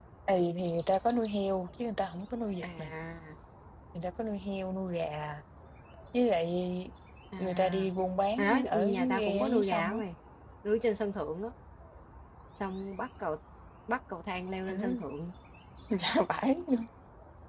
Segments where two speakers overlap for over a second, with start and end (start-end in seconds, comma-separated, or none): 8.4-10.0